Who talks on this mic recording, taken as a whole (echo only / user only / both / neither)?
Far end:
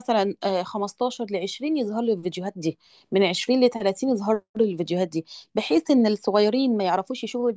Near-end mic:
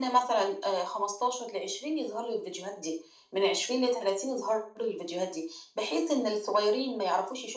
echo only